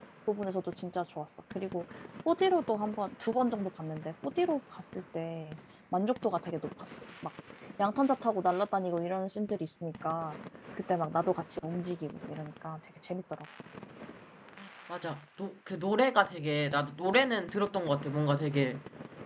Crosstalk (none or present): none